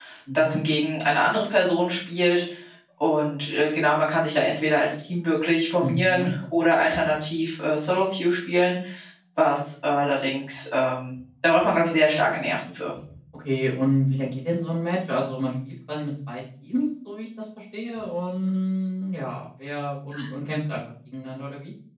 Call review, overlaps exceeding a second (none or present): none